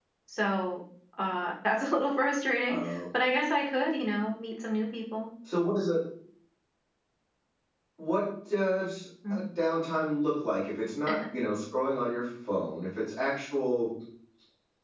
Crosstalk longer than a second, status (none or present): none